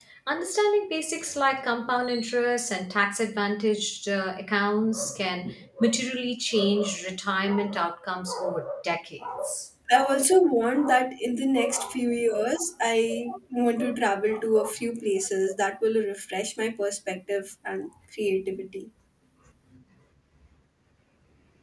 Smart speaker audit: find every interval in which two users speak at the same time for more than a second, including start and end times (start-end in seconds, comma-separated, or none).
none